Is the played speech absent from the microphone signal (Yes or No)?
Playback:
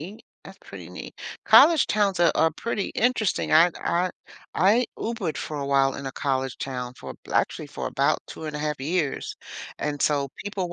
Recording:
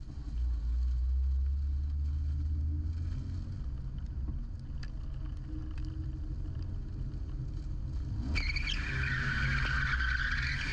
Yes